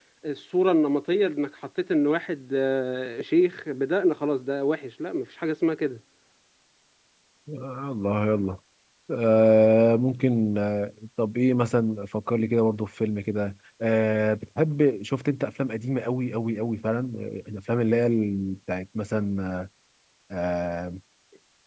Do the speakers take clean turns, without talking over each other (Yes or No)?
Yes